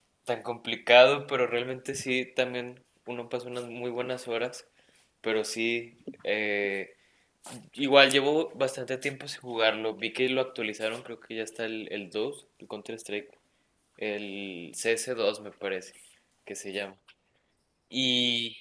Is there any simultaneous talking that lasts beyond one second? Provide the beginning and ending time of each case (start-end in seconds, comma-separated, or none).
none